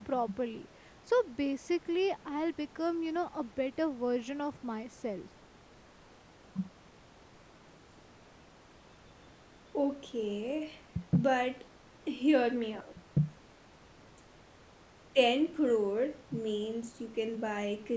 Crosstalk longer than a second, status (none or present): none